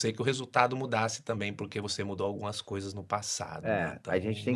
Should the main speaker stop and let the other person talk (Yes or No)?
Yes